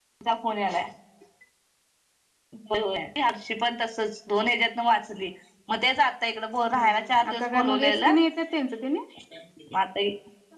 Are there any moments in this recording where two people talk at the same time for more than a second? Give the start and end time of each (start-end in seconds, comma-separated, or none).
6.7-8.1